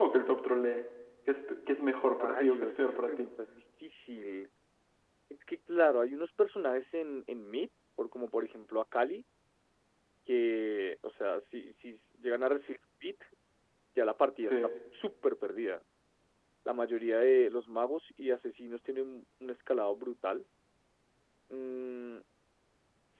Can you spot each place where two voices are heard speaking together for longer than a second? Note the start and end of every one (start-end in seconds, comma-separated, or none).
1.9-3.3